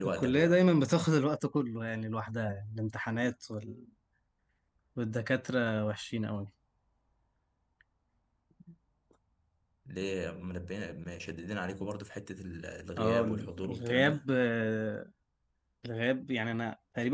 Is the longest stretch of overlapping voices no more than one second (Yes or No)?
No